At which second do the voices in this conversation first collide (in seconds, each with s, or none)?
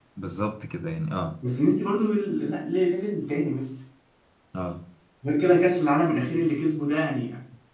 none